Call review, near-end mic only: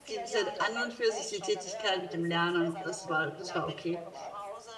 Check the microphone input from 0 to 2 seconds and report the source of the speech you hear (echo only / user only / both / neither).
both